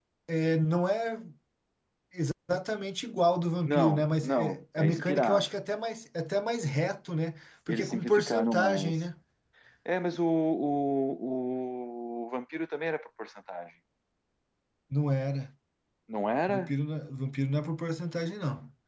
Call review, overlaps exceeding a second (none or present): present